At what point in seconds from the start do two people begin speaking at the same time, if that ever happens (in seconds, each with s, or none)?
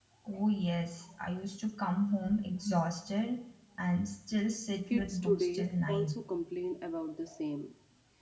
4.9 s